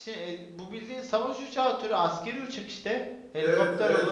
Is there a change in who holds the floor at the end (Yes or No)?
Yes